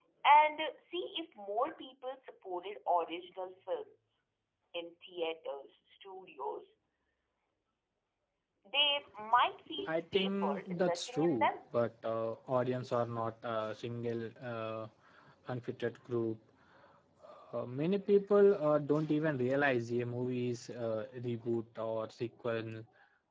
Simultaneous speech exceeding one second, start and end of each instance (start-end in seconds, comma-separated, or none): 9.8-11.8